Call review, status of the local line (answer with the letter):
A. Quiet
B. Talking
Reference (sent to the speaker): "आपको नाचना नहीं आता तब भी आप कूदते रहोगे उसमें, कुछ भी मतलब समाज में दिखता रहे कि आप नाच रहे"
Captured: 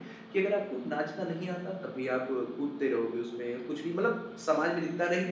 A